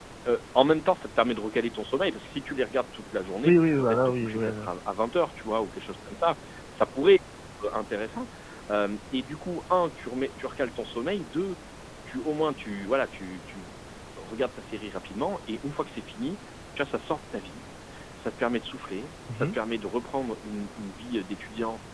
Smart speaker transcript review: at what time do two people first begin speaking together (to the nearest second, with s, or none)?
3 s